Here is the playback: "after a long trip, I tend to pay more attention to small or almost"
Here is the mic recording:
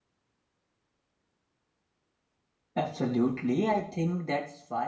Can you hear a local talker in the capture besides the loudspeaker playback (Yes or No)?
Yes